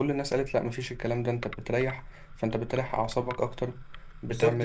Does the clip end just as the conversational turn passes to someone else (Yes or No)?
Yes